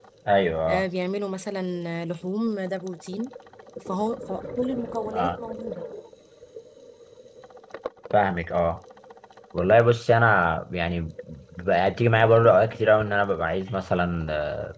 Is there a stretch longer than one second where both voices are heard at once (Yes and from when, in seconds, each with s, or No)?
No